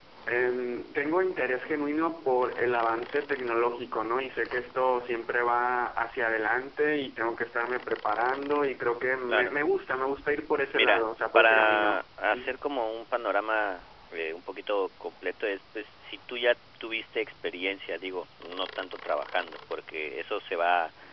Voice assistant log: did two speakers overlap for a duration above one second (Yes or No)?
Yes